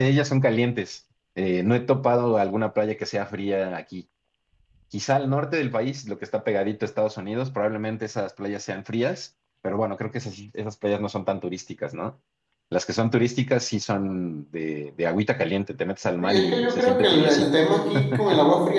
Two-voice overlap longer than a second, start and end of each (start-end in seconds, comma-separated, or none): 16.2-17.7